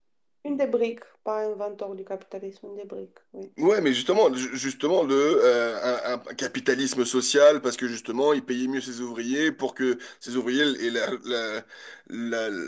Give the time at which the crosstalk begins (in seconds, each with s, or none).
none